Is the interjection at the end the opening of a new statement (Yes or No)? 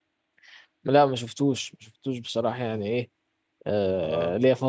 No